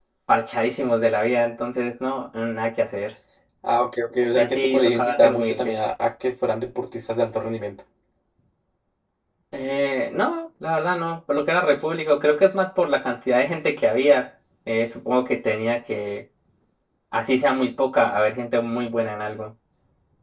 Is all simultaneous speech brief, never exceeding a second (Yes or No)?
No